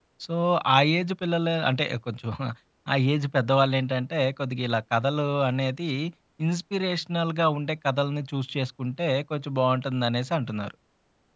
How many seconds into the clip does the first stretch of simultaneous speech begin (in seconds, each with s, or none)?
none